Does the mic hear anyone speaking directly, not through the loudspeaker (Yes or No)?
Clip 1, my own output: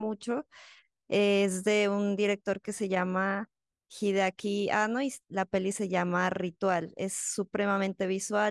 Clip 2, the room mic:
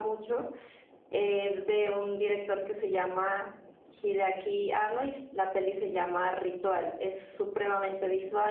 No